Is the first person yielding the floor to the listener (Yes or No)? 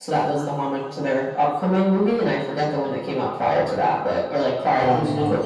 No